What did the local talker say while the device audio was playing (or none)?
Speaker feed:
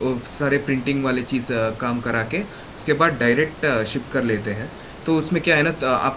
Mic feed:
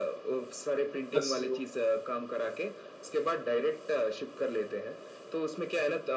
एसईओ